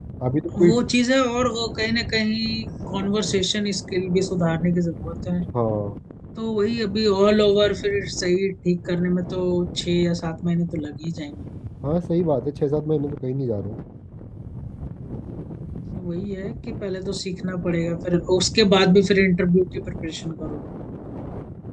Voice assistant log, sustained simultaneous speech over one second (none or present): none